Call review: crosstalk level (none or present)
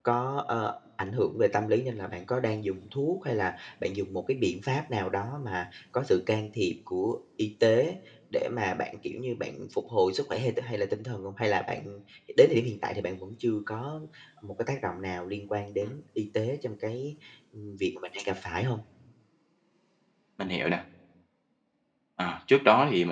none